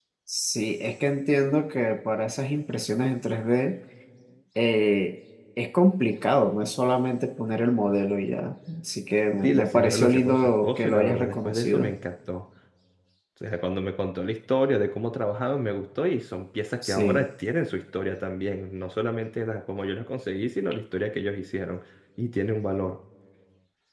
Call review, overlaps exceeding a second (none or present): present